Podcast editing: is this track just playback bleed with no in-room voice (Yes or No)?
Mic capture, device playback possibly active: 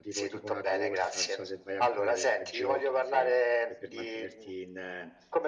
No